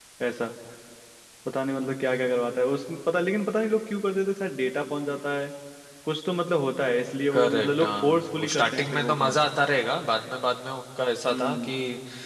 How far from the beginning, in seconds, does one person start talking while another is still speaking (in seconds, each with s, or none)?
7.3 s